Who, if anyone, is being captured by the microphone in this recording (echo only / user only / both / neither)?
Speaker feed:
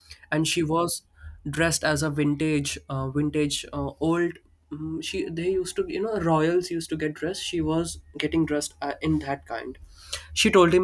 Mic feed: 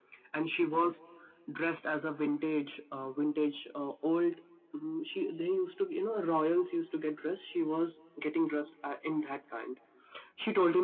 echo only